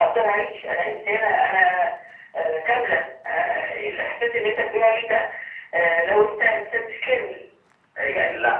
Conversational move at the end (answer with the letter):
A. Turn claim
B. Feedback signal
B